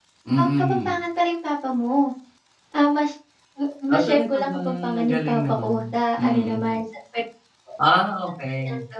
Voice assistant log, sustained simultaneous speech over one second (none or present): present